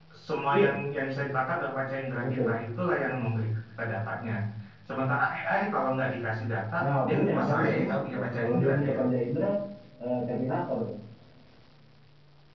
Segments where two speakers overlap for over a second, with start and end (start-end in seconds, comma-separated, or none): 6.8-9.0